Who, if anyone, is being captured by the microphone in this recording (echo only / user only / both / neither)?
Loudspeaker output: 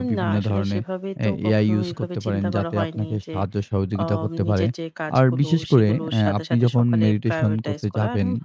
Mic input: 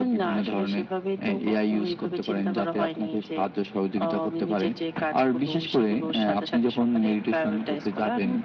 echo only